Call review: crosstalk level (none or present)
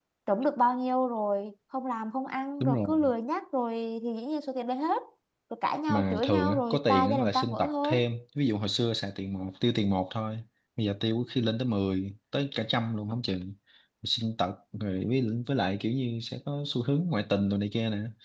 present